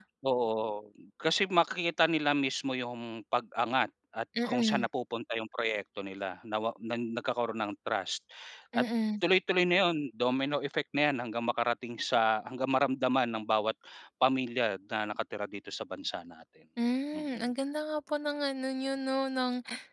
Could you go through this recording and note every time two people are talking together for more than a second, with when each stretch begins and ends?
none

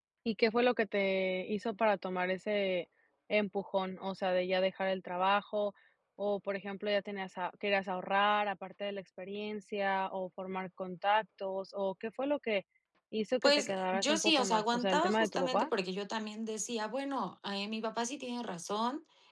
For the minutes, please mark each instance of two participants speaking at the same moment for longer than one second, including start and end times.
13.4-15.7

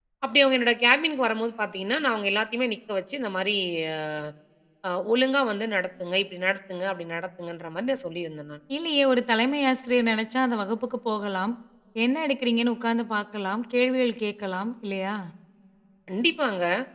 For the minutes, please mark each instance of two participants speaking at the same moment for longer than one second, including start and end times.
none

